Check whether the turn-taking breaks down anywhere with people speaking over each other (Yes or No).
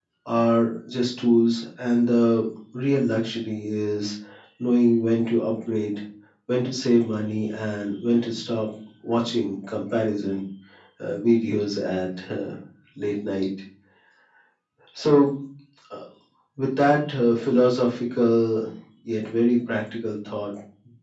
No